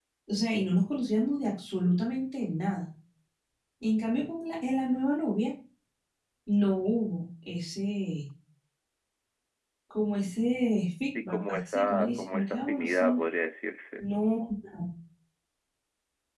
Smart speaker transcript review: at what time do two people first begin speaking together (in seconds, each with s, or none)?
11.2 s